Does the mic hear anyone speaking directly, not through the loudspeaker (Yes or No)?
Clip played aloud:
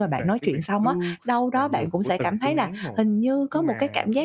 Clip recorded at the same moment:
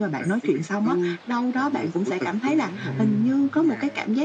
Yes